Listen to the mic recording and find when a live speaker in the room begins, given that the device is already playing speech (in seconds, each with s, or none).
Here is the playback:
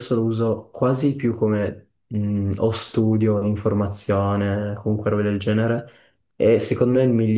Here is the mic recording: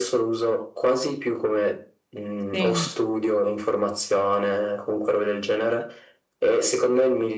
2.5 s